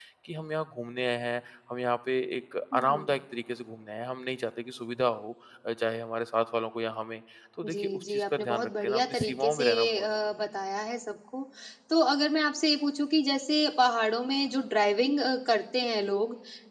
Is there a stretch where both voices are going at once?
Yes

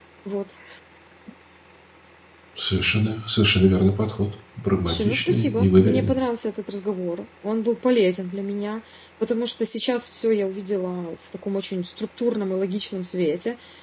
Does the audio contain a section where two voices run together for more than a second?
Yes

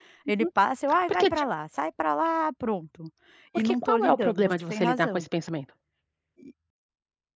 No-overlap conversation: No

